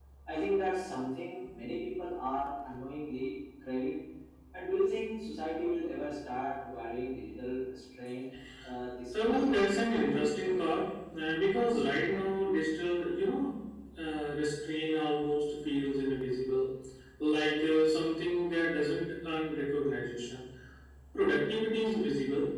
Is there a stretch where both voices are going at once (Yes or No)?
Yes